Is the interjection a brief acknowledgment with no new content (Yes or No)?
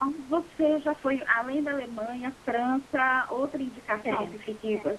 Yes